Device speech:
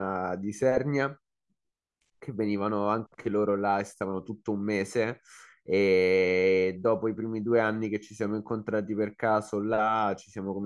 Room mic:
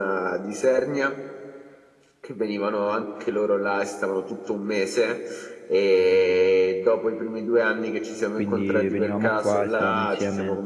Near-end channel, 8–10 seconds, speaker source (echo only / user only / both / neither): both